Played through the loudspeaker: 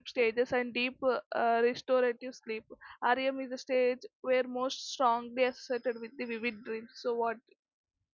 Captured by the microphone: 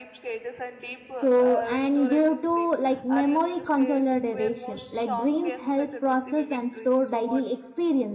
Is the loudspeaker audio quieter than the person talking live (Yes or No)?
Yes